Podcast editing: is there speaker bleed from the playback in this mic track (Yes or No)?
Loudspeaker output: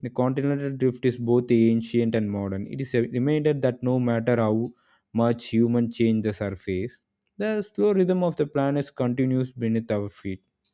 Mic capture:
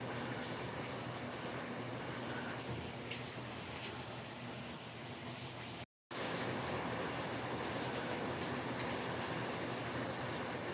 No